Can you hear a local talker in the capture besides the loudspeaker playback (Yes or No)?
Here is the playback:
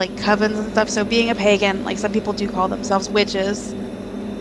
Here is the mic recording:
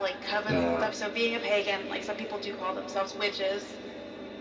Yes